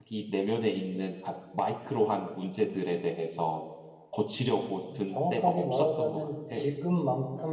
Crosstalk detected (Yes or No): Yes